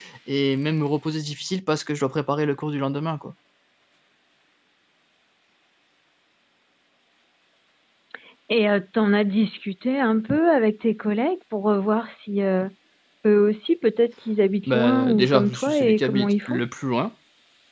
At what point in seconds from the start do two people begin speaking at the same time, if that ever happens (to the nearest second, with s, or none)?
15 s